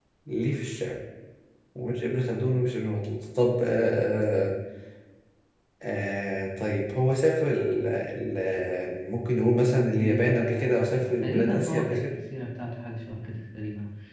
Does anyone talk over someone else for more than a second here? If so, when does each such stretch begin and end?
9.9-12.1

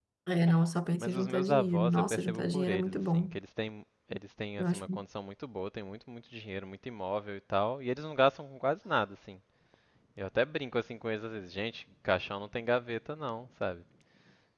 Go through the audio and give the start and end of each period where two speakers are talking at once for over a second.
1.0-3.3

